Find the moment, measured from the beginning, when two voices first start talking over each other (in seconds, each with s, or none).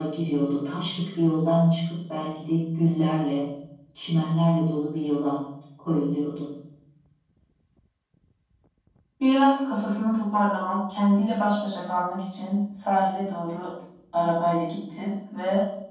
none